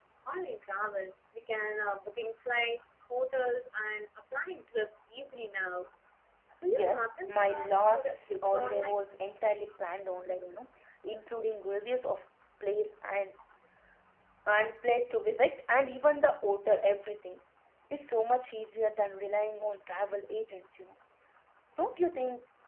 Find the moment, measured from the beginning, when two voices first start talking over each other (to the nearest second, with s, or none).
7 s